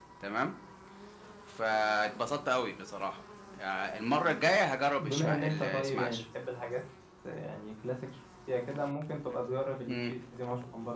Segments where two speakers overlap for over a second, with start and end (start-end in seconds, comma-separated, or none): 5.0-6.2